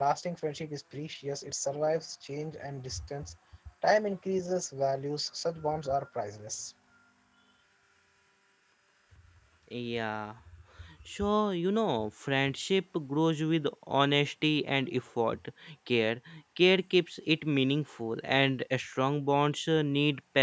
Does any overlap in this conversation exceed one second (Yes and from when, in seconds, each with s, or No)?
No